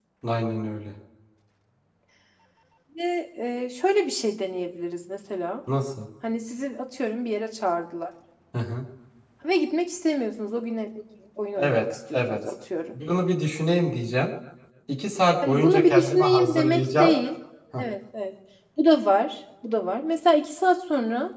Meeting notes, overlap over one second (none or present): present